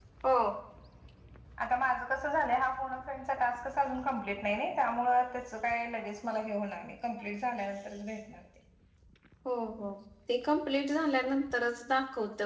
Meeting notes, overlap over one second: none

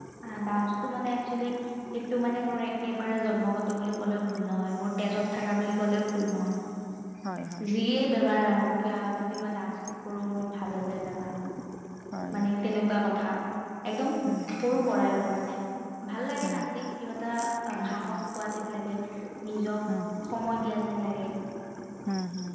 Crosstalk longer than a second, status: none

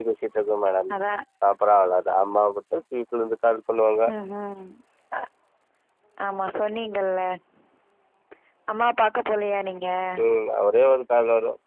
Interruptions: none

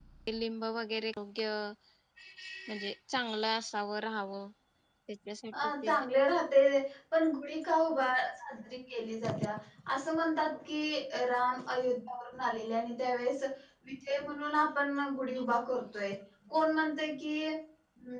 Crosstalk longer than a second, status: none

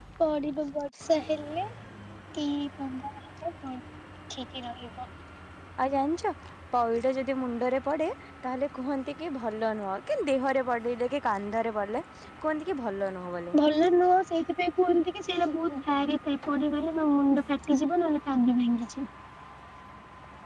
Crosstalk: none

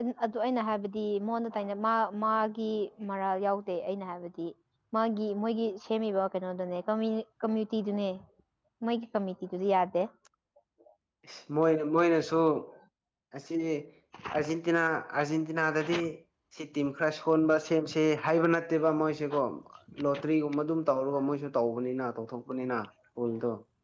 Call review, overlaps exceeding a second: none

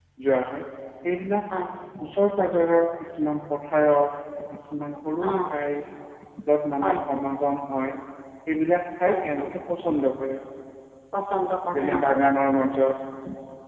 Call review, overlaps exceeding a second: none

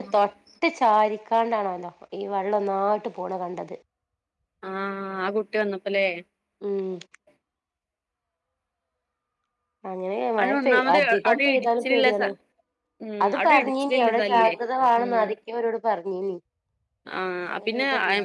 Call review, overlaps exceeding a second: present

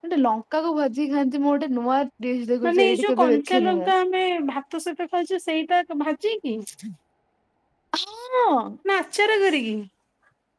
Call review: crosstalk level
present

